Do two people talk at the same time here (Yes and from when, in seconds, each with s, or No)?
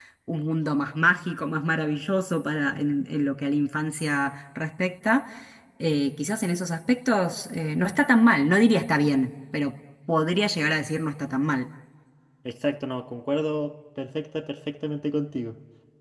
No